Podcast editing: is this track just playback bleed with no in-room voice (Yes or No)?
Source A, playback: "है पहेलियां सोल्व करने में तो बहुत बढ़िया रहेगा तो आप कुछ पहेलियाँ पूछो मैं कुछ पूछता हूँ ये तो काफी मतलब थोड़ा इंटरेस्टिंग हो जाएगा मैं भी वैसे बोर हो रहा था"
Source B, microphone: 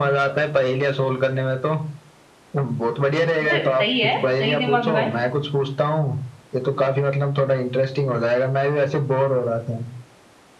No